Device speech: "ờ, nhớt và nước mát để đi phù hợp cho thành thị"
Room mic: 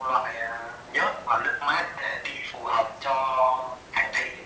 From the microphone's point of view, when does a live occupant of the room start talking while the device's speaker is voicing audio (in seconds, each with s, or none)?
none